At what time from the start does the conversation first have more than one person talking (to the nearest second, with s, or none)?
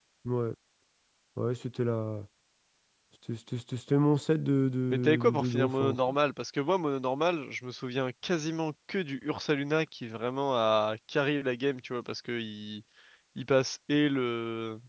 5 s